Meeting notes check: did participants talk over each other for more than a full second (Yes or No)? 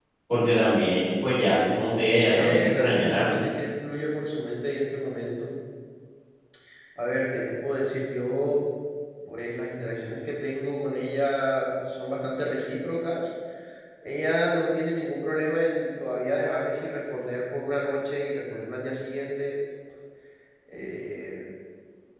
Yes